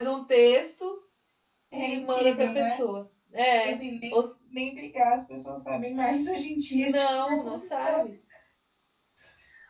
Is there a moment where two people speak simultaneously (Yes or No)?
Yes